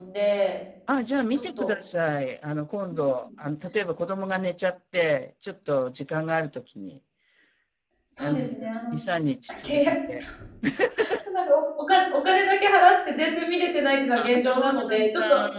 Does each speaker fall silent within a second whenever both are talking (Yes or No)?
No